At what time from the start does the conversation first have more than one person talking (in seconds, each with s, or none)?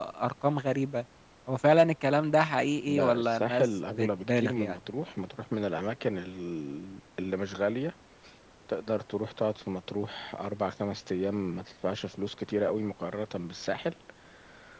2.9 s